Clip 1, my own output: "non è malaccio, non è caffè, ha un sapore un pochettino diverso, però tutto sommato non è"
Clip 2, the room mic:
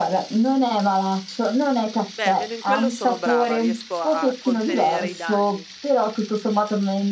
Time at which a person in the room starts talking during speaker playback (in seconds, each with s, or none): 2.2 s